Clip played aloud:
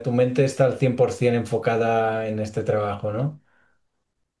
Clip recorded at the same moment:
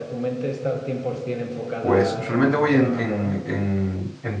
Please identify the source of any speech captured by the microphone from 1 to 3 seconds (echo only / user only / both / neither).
both